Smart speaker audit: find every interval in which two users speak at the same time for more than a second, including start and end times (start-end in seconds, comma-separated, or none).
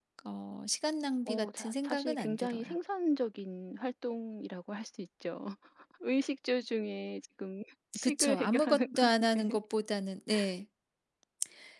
1.3-2.6, 8.0-9.6